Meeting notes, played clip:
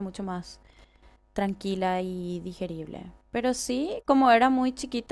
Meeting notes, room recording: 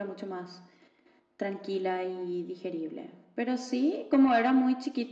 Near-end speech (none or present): none